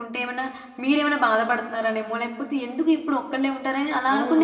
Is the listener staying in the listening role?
No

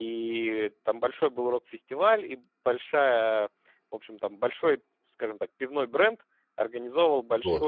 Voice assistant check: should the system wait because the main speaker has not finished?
Yes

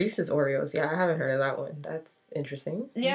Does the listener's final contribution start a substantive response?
Yes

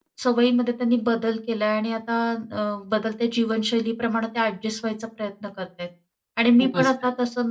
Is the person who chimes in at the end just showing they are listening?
Yes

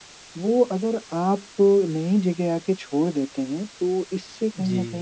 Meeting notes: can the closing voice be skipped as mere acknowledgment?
Yes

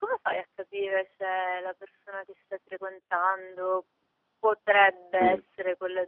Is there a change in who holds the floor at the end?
No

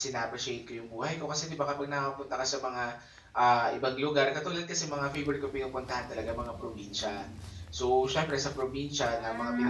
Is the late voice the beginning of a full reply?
No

